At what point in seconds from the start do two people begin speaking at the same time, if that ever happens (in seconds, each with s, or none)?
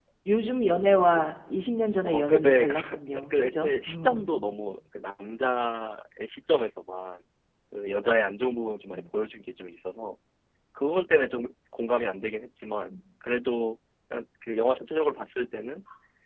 2.0 s